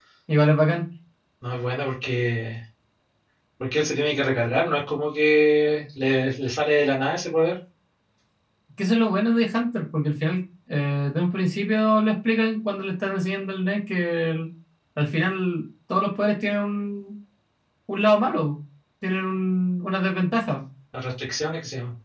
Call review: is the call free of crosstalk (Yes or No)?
Yes